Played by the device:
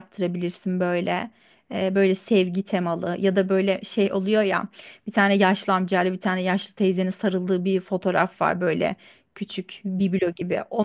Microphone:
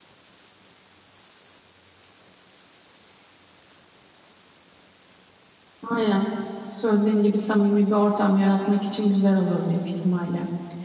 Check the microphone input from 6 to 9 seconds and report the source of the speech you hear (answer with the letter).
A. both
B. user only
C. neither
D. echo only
B